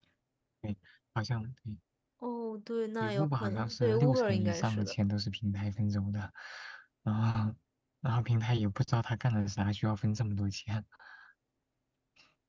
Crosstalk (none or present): present